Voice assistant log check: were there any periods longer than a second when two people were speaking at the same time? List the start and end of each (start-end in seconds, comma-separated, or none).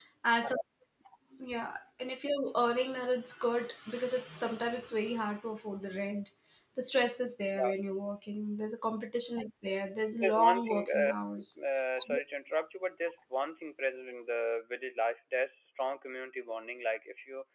10.2-11.6